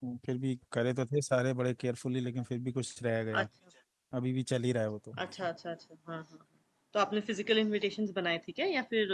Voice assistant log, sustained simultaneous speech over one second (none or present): none